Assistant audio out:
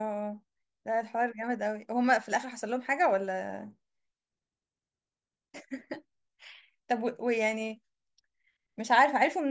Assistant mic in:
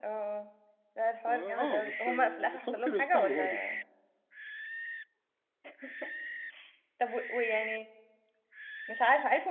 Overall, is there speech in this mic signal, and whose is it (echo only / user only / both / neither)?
both